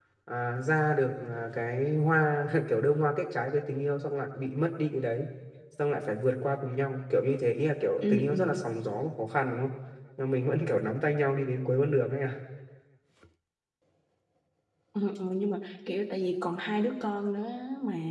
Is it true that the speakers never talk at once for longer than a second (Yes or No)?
Yes